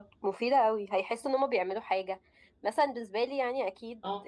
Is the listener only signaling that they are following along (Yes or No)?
Yes